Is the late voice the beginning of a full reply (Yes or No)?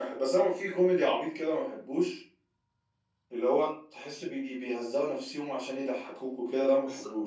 Yes